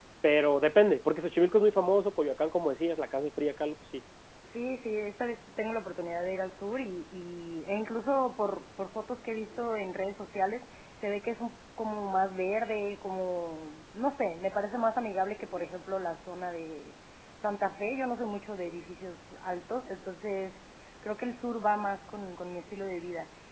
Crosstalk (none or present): none